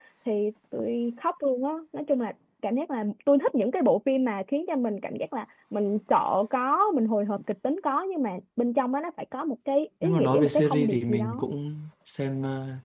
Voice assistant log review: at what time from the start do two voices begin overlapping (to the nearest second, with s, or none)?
10 s